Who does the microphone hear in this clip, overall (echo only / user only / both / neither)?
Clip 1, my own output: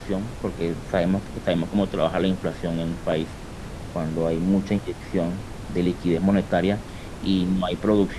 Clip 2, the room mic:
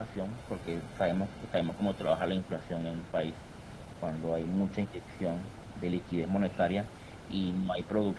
both